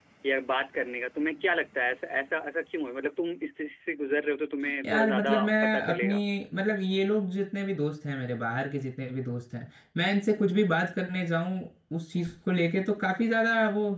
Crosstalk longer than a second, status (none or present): present